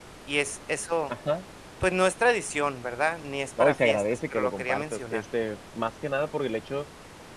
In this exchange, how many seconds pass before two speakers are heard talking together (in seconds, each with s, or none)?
3.6 s